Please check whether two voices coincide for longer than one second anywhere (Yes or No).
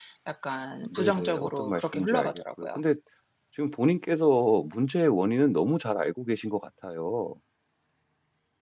Yes